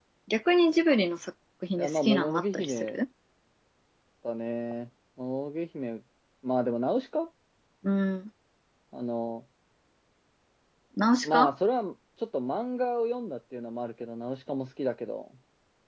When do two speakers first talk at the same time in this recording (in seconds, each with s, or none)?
1.8 s